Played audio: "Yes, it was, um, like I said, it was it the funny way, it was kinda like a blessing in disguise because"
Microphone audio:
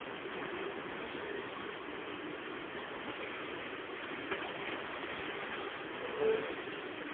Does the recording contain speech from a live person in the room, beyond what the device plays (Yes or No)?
No